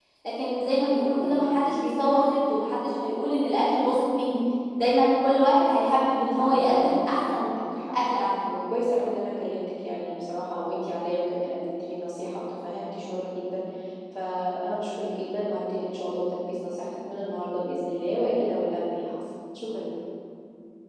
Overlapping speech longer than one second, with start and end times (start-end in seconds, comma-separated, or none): 6.3-7.6